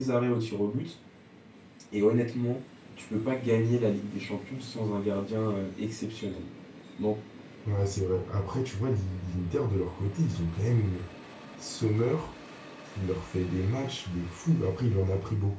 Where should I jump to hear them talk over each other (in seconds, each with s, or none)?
none